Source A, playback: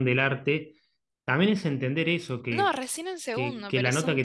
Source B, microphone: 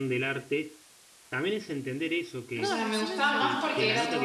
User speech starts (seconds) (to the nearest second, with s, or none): 3 s